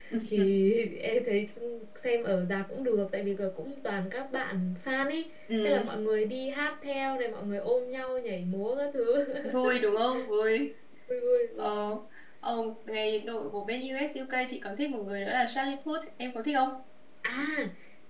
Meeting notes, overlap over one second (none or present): none